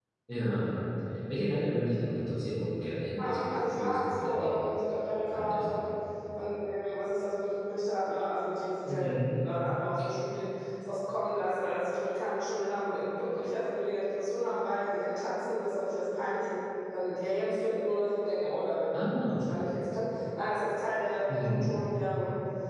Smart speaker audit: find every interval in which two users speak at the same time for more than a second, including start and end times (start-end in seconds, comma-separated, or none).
3.2-4.6